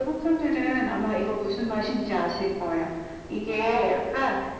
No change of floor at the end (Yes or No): Yes